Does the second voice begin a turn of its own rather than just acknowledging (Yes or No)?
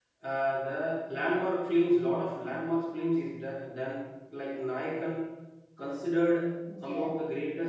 No